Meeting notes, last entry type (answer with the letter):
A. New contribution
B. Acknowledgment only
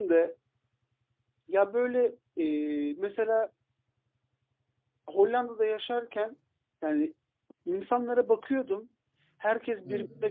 B